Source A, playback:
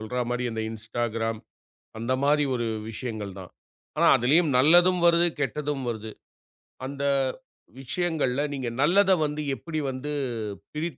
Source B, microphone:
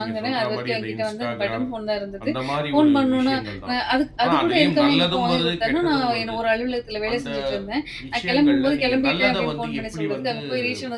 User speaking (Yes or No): Yes